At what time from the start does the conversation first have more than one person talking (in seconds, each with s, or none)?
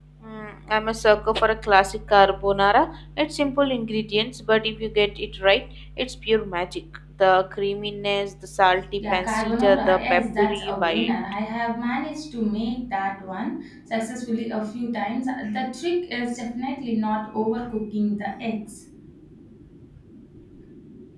9.0 s